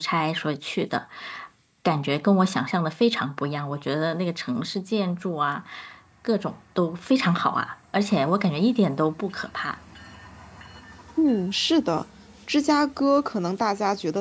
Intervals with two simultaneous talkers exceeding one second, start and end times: none

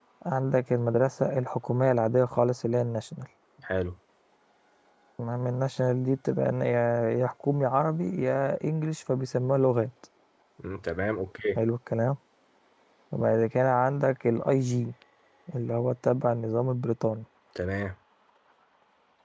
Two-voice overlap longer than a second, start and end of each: none

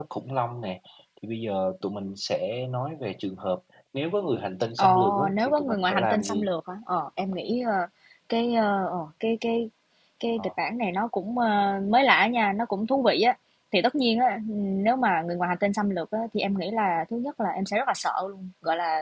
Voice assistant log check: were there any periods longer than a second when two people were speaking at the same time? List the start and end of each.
4.8-6.5

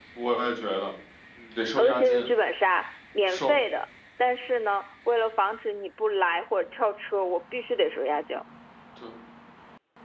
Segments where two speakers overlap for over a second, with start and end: none

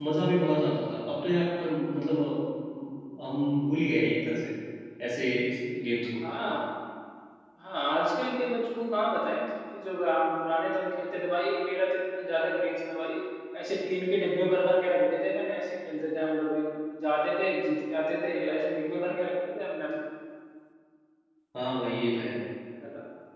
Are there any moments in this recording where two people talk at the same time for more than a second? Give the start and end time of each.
none

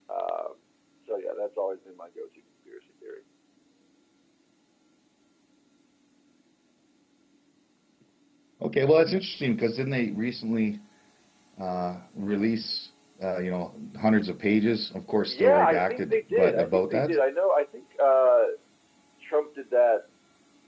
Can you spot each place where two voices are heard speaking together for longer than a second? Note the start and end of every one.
15.3-17.2

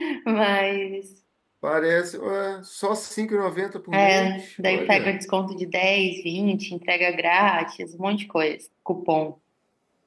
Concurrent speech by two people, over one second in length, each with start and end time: 3.9-5.2

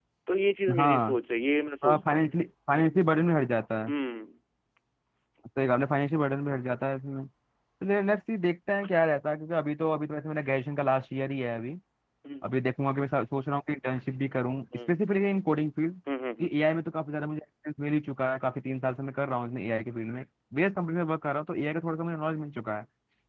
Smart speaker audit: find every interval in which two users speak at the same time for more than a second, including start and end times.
none

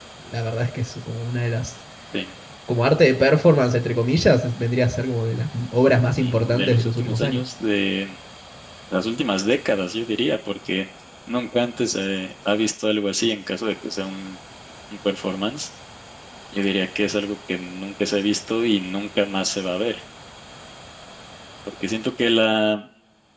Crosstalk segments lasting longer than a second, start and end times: 6.2-7.4

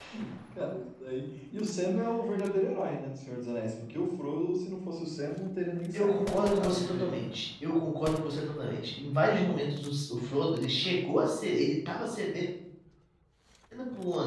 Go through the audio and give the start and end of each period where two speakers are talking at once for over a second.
5.9-7.3

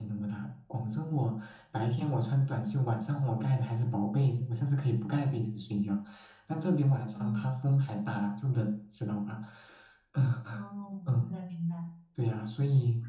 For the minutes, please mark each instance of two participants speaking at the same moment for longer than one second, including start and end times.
none

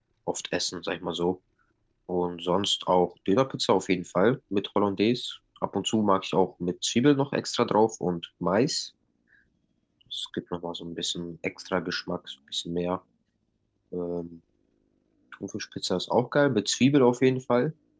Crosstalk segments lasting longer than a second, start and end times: none

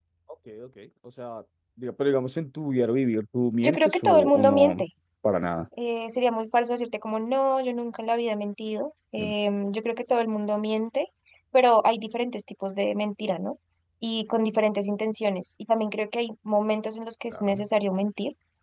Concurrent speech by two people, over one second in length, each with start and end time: 3.6-4.8

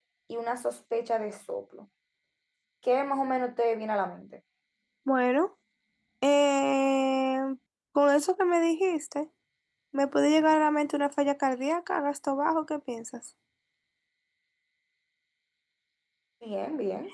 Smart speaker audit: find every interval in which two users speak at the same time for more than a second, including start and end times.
none

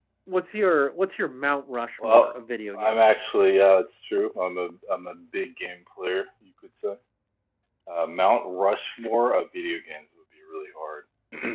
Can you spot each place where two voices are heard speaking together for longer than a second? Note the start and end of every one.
none

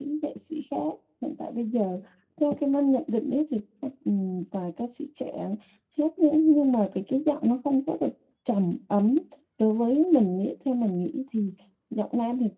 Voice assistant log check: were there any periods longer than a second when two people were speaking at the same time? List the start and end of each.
none

